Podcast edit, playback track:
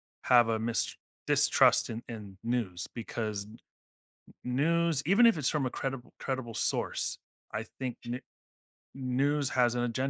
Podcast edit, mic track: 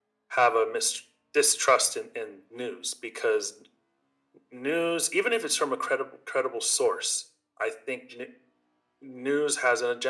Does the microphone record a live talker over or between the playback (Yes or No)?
No